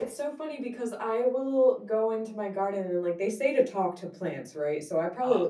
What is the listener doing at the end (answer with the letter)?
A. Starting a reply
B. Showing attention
B